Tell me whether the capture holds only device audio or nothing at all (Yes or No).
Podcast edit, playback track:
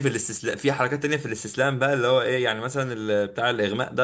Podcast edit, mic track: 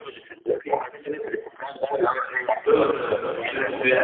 No